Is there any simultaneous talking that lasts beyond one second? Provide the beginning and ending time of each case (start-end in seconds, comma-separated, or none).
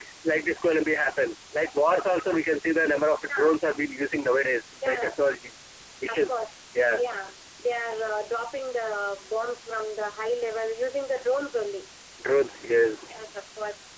none